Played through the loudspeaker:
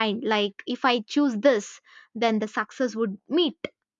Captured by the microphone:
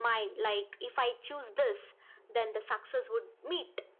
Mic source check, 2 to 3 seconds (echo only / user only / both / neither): echo only